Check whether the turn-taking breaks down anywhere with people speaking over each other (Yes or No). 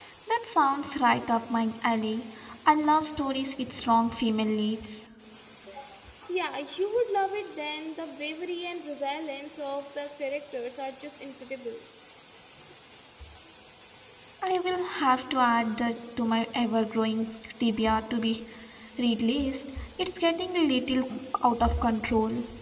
No